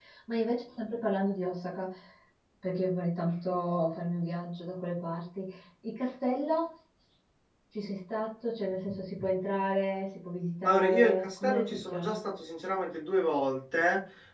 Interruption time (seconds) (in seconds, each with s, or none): 10.6 s